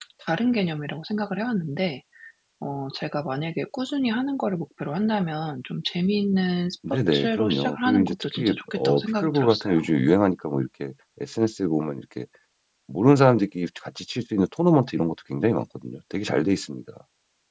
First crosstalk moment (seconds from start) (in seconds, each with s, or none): 6.8 s